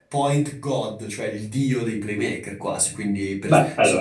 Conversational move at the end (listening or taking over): listening